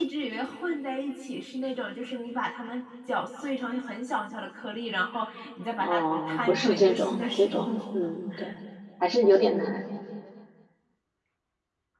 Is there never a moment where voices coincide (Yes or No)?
No